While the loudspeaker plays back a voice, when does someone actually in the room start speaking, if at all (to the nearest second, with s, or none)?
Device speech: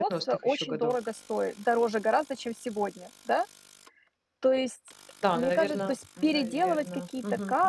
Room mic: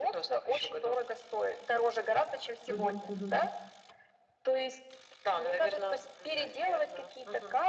3 s